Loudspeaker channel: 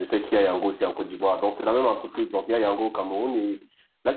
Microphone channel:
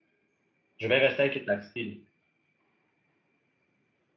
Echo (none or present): none